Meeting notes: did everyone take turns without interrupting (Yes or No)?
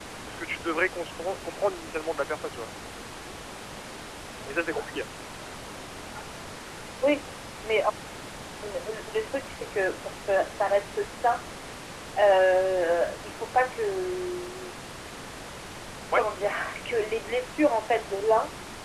Yes